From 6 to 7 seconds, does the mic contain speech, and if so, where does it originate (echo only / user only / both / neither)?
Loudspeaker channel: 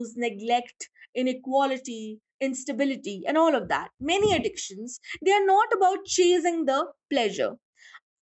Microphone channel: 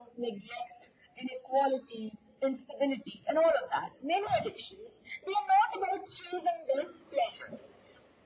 echo only